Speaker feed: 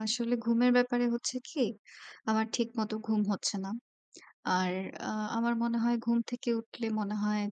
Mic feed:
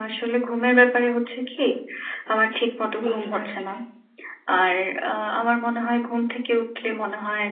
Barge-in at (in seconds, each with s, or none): 3.0 s